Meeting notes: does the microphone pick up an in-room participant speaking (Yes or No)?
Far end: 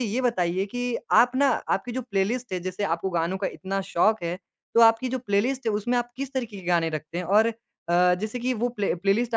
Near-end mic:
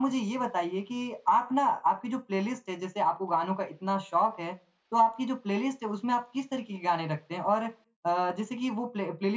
No